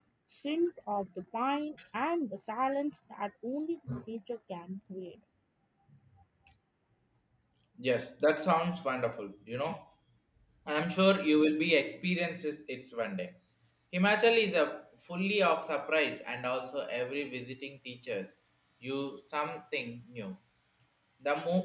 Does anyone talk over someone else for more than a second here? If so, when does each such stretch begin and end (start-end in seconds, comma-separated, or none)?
none